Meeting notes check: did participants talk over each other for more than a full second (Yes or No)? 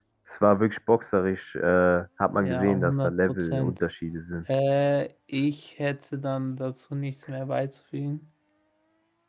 Yes